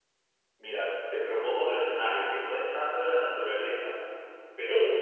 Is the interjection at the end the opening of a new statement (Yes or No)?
No